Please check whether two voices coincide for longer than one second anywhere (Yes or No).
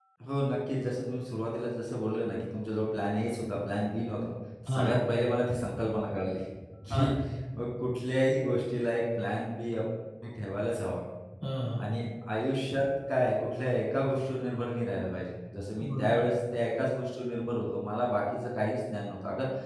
No